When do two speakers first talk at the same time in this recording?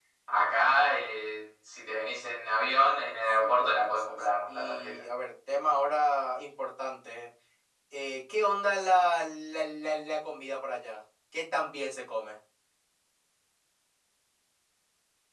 3 s

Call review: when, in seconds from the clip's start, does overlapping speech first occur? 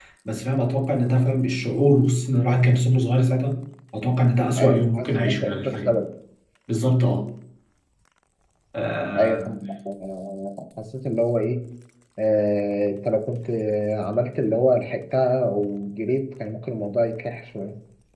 5 s

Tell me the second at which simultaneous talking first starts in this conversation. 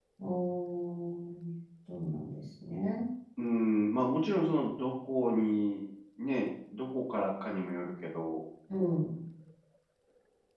none

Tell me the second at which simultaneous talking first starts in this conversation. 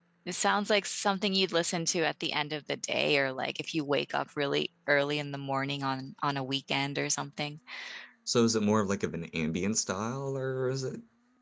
none

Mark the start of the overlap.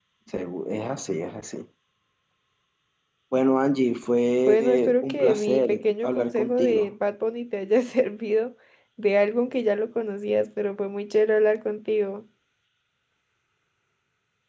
4 s

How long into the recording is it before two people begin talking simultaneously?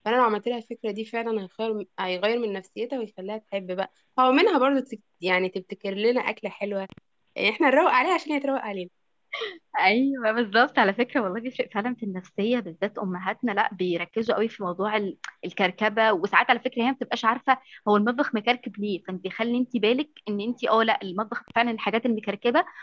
none

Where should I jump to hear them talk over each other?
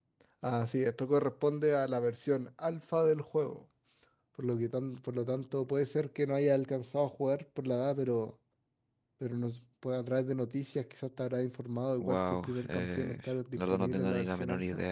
12 s

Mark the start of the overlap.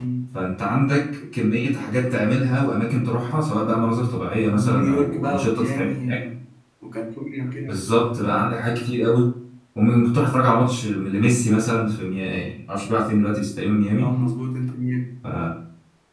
4 s

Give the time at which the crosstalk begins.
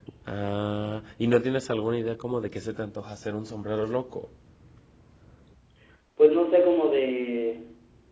none

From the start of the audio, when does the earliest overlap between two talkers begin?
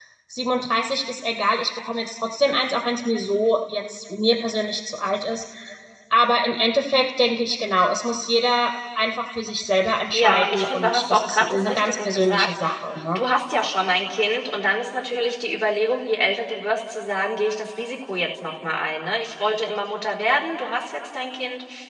10 s

